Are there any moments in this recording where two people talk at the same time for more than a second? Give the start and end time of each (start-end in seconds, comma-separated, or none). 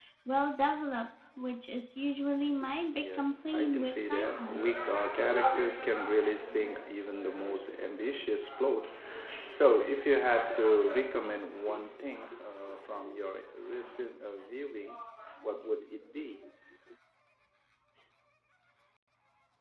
2.9-4.6